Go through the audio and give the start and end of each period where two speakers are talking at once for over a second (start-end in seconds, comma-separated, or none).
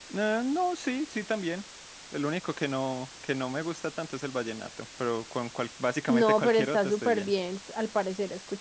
6.1-7.3